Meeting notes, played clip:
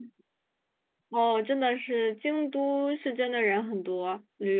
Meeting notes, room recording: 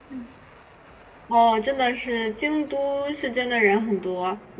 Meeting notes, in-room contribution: none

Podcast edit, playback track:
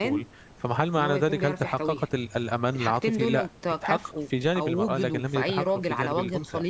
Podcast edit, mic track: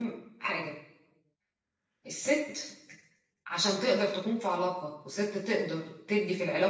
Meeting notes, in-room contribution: present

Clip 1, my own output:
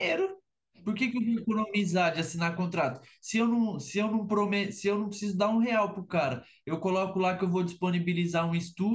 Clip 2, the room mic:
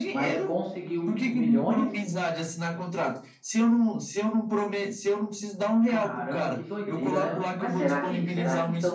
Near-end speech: present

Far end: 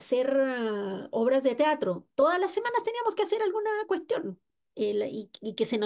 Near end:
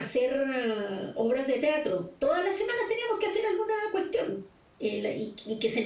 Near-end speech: none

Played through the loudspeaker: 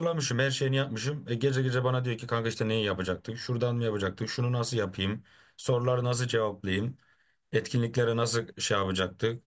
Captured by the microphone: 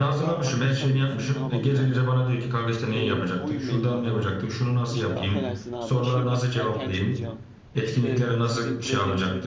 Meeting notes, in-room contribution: present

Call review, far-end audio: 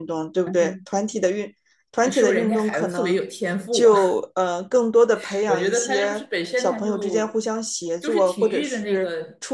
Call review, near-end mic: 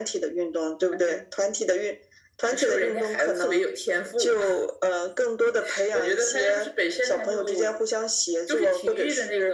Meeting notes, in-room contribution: none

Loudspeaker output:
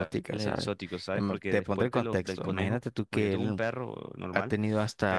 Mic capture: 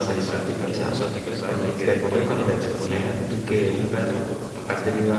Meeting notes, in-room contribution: present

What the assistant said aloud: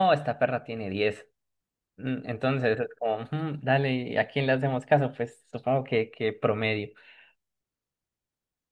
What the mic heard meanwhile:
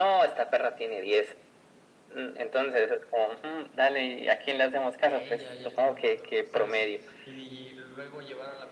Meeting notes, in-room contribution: present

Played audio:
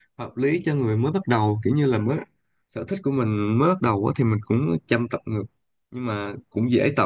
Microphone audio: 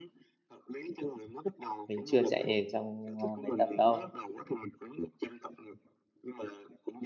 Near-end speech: present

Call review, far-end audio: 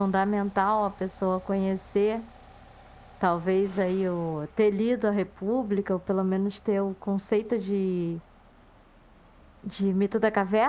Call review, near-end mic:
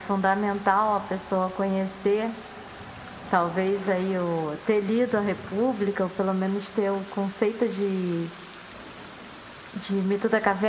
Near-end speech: none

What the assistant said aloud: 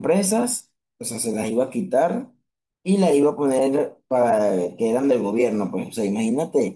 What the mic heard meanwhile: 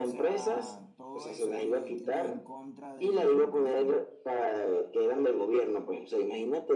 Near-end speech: present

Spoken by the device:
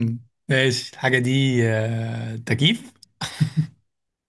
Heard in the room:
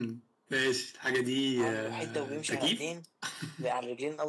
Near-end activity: present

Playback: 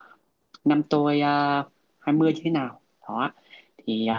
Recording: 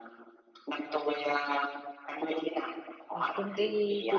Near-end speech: present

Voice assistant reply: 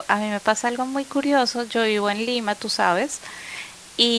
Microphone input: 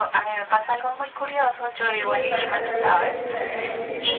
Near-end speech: present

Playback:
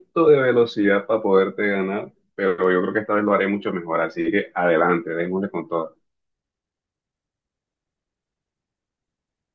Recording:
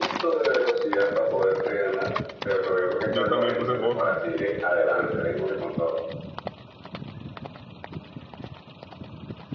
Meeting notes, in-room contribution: present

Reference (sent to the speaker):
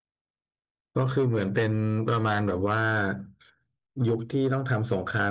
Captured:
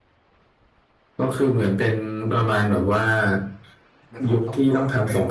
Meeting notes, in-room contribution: present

